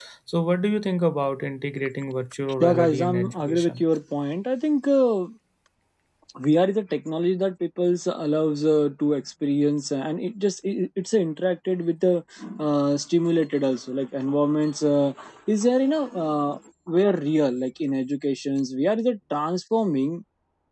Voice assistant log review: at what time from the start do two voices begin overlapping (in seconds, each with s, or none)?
2.6 s